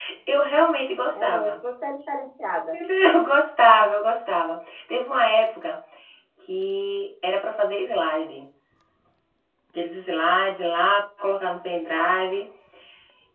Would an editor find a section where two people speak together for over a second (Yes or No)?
No